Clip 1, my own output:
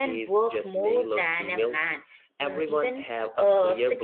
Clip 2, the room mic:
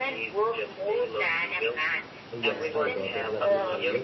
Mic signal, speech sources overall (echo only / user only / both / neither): both